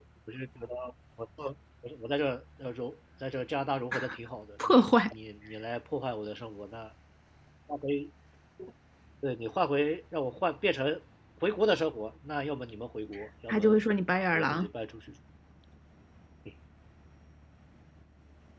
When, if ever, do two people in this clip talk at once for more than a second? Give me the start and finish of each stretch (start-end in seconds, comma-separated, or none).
none